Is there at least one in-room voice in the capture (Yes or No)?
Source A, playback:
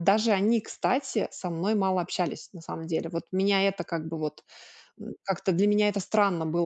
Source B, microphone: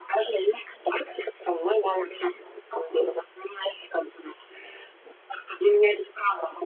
No